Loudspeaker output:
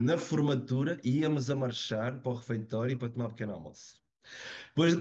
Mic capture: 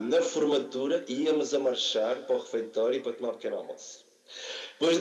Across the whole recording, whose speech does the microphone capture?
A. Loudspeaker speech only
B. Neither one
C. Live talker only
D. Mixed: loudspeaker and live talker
A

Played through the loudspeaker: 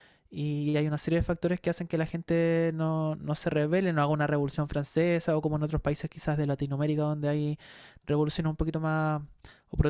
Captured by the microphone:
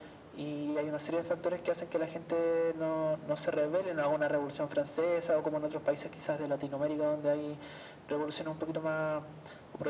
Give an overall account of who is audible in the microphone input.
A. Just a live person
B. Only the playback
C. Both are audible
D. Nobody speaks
B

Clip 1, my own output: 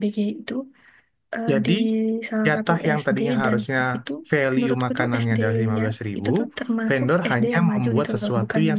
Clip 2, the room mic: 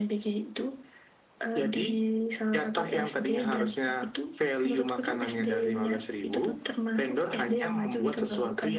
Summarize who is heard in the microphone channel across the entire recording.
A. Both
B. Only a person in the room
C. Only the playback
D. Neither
C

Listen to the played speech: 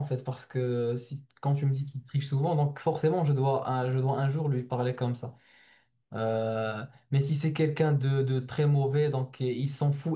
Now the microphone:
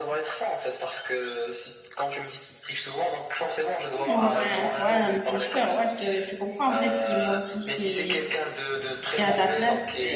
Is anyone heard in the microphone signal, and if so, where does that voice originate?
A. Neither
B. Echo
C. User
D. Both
D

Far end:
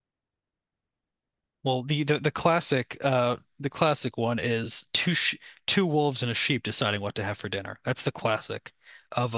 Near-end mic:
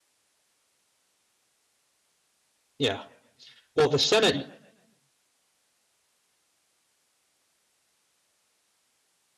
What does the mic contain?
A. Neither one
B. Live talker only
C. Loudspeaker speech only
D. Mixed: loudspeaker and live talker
B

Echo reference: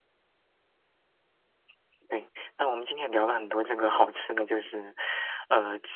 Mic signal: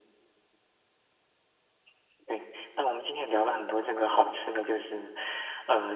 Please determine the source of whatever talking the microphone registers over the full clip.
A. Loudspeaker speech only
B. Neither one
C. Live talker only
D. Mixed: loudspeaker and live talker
A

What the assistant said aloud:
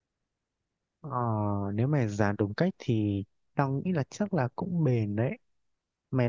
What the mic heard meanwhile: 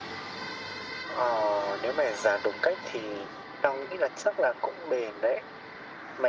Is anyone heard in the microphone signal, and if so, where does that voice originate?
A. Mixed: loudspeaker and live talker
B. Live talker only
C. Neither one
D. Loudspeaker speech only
D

